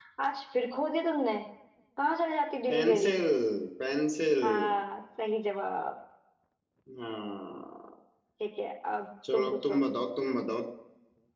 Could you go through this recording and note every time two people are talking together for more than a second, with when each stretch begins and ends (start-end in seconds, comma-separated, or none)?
none